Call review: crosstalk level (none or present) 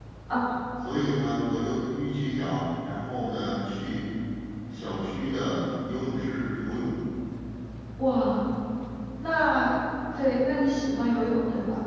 none